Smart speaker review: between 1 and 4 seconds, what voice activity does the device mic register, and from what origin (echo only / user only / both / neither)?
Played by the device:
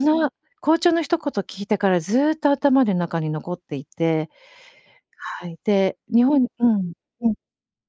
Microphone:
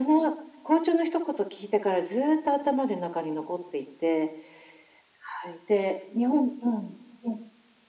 echo only